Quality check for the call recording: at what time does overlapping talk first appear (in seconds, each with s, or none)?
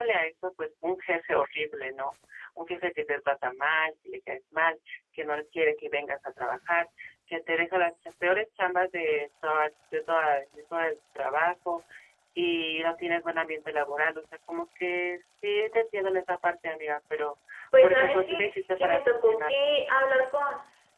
17.8 s